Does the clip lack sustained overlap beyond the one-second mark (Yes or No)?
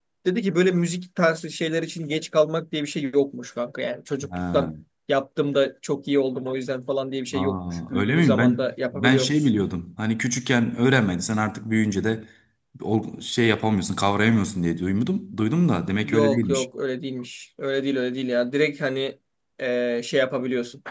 No